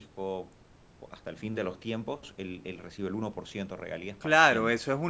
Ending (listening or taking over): taking over